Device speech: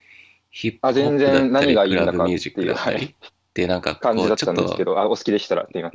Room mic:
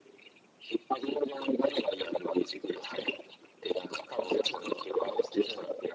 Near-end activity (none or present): present